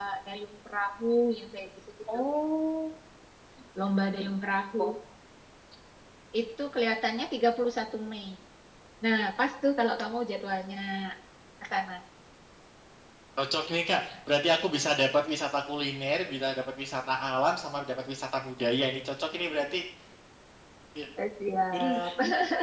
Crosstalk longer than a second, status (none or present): none